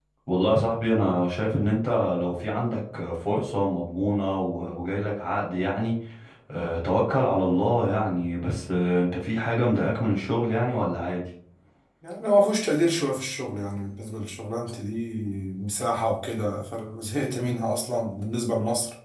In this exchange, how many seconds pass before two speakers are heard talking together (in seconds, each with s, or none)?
none